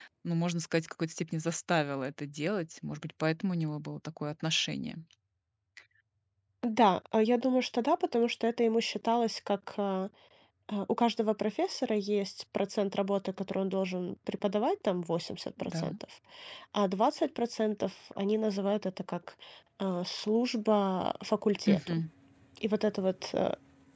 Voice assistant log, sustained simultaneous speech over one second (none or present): none